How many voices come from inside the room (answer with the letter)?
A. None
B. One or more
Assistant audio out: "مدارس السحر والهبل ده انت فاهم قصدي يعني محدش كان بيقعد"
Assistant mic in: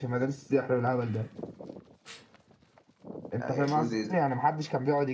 B